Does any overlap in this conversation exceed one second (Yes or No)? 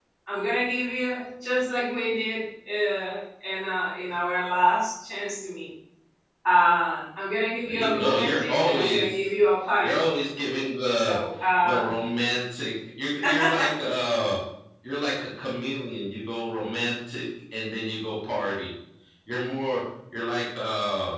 Yes